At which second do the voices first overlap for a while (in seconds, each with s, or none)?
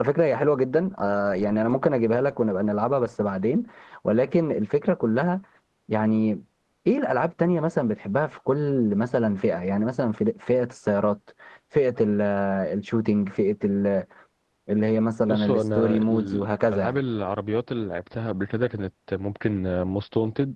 15.3 s